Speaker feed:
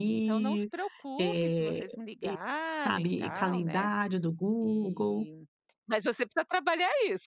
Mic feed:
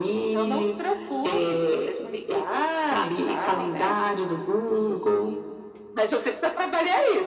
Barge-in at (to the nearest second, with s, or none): none